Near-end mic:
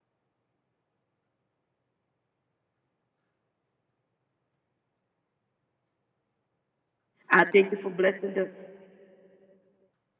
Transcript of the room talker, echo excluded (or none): I thank you for blessing the